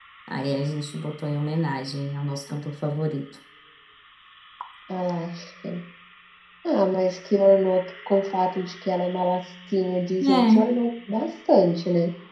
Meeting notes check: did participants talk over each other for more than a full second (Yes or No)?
No